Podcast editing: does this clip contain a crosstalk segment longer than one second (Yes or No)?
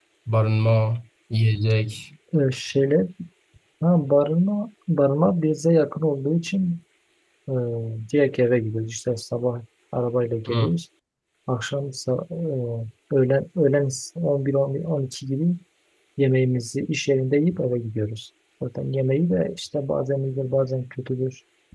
No